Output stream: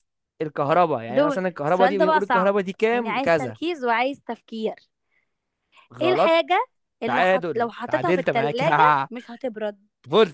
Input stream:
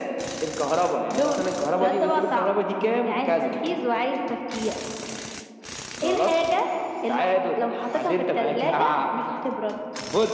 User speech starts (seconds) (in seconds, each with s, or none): none